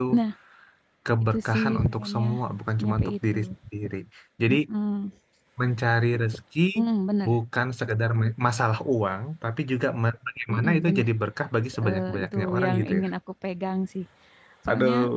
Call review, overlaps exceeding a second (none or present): present